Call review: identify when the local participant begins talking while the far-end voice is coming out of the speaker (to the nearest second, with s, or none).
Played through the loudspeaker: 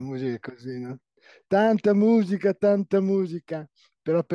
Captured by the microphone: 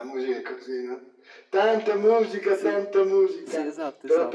2 s